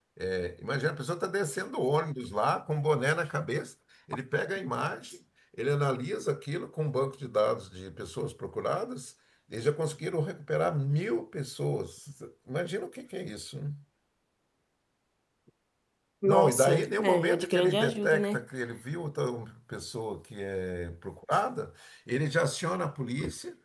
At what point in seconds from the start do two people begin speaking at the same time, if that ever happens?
16.3 s

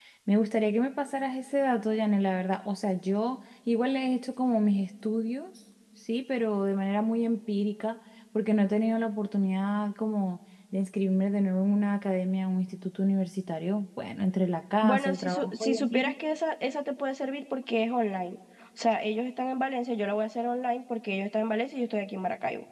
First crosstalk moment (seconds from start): 14.8 s

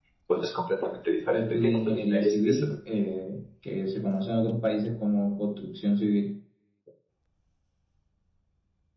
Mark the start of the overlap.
1.3 s

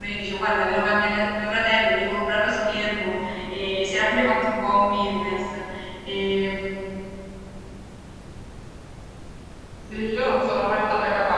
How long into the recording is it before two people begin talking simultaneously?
none

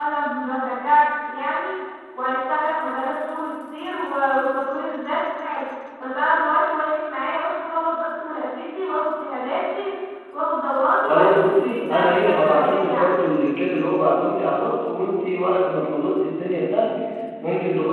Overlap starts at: 11.1 s

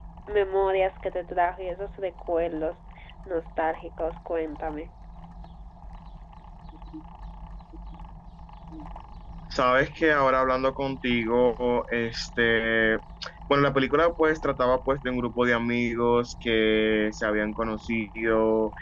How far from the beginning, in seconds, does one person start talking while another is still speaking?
none

